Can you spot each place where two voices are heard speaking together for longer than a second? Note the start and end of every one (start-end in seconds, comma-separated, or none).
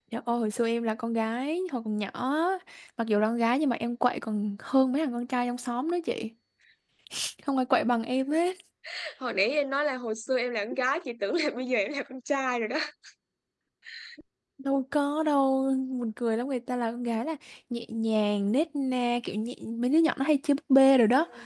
none